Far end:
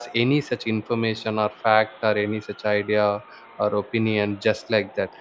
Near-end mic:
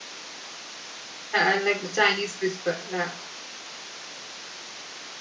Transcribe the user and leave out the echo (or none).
Uh, like Chinese whisper. la-